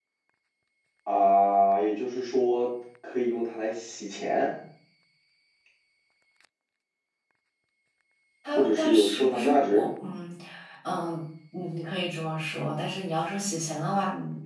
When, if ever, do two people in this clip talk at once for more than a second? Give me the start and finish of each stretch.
8.5-9.9

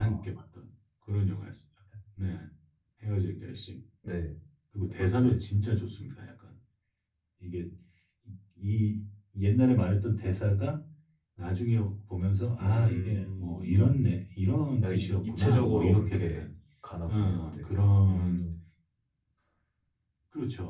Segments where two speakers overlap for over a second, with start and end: 12.6-14.0, 14.8-16.5, 17.1-18.4

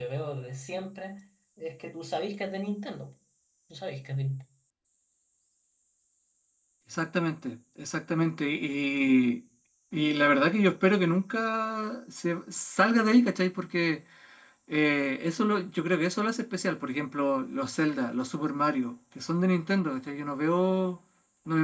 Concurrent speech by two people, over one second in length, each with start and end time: none

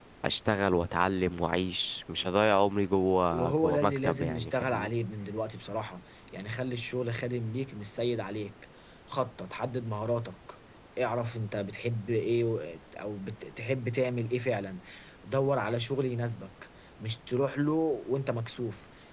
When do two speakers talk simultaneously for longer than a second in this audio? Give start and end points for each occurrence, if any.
3.3-4.9

